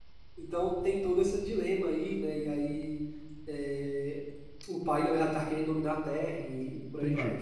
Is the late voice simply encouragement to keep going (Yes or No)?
No